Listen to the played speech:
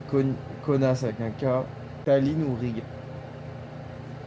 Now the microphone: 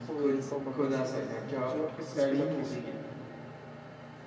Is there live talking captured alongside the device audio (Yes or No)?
Yes